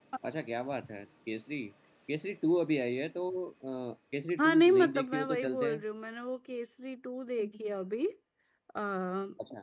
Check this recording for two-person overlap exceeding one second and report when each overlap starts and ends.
4.4-5.8

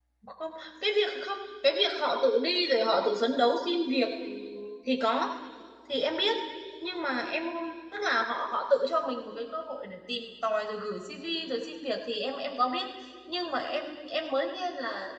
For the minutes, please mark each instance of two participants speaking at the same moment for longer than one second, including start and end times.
none

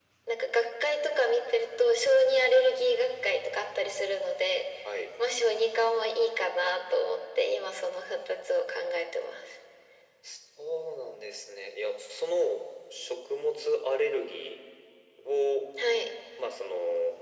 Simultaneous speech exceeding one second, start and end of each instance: none

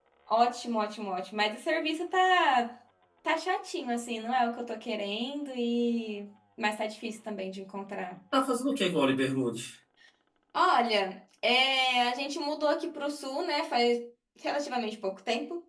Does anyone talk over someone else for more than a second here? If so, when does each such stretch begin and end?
none

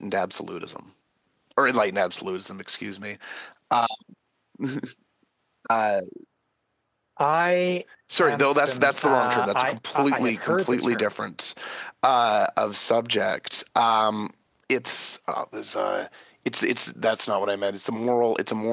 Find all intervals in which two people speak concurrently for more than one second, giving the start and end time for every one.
8.2-11.1

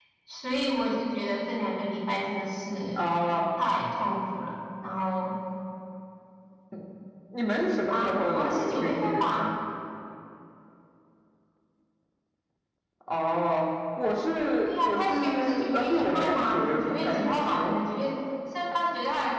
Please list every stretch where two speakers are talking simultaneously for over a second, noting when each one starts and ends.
7.9-9.4, 14.7-17.8

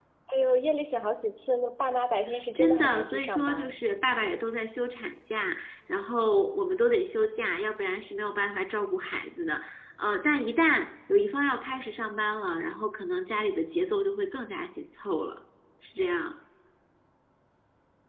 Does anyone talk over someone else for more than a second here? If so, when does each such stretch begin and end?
2.5-3.8

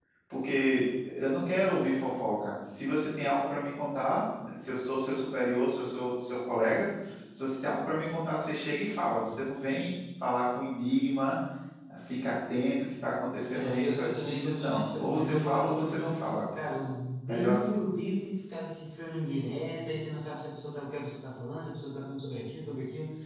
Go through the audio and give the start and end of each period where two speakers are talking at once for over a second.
13.5-16.0

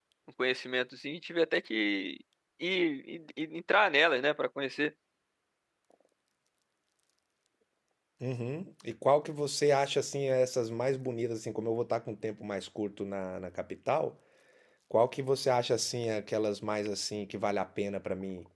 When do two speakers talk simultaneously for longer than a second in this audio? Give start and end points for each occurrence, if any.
none

